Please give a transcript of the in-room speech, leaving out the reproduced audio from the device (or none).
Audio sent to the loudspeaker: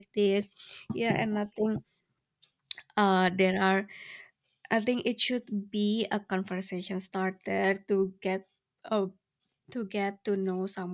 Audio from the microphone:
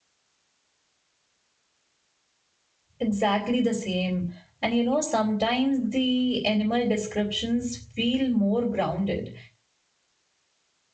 Exactly the same. And you know, sometimes the animal descriptions feel more grounded,